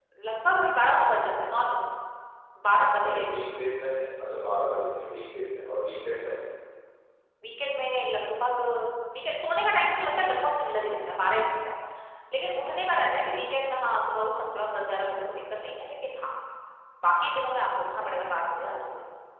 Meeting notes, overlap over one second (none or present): none